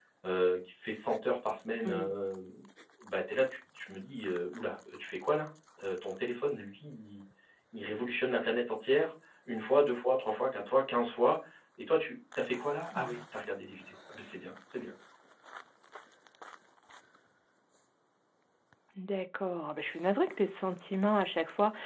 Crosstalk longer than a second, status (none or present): none